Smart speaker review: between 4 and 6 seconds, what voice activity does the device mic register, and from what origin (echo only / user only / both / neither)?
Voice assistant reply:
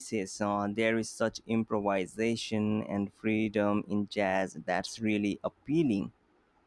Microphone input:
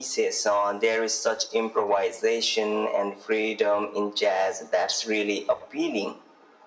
echo only